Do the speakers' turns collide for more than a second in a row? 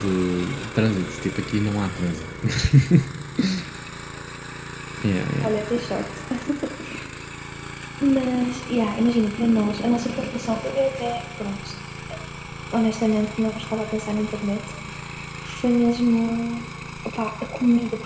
No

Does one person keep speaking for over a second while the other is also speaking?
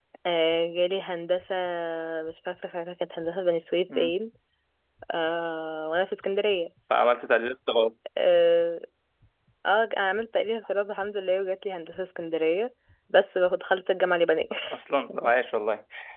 No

